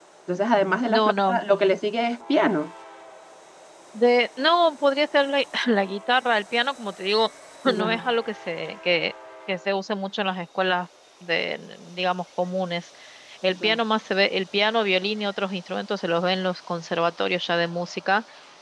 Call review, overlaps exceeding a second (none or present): none